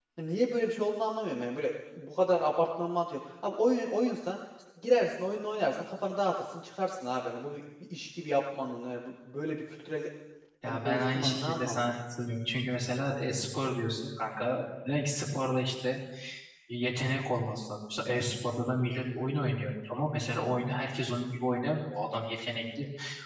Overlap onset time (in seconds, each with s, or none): 10.7 s